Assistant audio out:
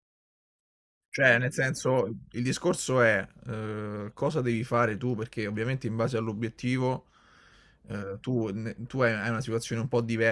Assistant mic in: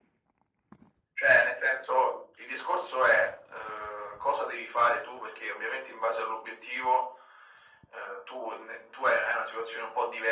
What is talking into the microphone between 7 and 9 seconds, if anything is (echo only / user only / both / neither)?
echo only